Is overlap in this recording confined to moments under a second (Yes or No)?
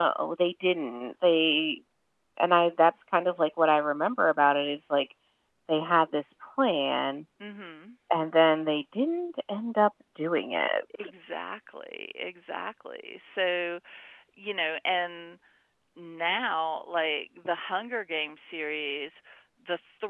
Yes